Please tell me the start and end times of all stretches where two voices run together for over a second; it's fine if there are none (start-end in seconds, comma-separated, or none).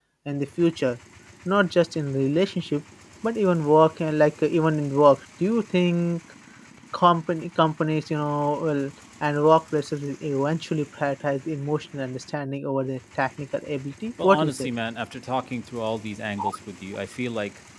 none